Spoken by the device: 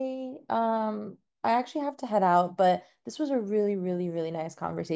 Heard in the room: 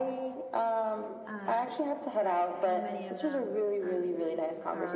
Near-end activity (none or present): present